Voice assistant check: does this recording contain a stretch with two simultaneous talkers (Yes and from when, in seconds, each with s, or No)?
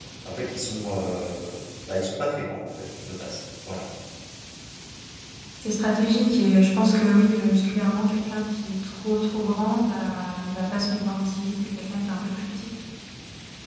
No